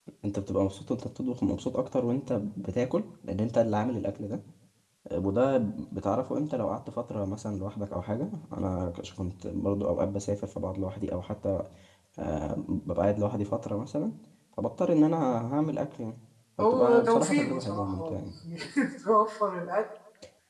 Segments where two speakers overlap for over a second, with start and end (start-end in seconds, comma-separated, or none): 16.6-18.2